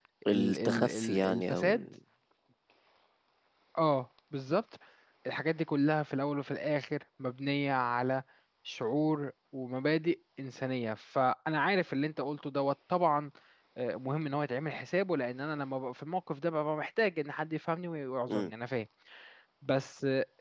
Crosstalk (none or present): present